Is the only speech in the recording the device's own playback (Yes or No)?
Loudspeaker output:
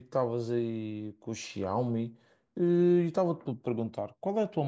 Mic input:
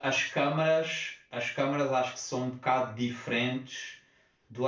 No